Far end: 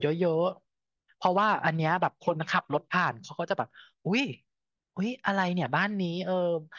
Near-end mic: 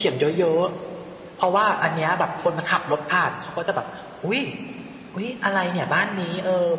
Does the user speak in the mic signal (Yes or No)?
No